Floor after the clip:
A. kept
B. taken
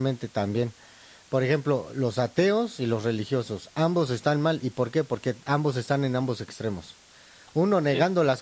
A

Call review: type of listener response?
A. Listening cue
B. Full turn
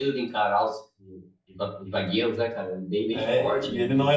B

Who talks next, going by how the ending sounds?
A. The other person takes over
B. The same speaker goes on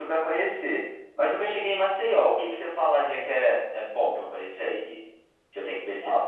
A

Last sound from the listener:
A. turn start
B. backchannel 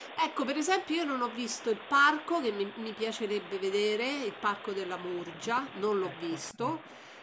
B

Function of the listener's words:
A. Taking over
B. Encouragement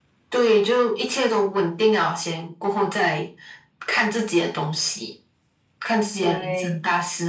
B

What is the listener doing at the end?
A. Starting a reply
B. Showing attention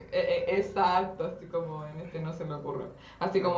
B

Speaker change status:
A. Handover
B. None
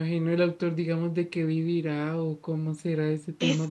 A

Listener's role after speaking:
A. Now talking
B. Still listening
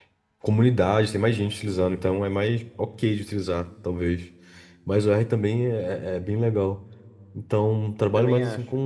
B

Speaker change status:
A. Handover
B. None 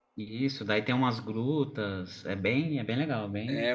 A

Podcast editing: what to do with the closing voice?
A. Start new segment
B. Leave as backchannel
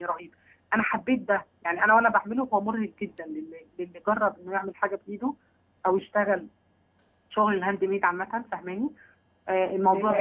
B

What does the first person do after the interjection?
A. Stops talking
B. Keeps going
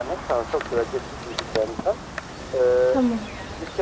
B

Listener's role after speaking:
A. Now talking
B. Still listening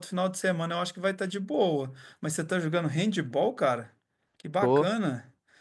B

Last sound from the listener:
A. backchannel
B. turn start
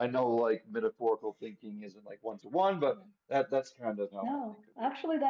B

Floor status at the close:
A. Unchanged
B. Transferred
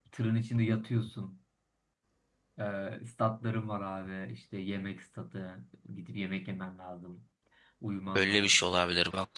B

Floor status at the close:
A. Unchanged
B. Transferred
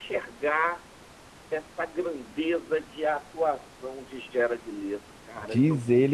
B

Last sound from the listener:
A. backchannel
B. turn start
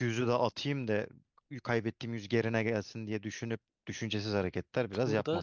B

